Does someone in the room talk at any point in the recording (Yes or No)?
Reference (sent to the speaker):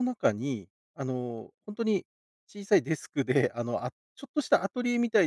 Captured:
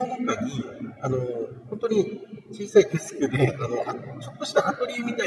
No